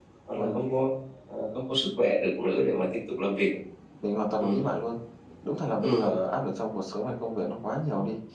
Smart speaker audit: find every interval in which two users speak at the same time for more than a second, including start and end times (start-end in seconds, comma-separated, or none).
none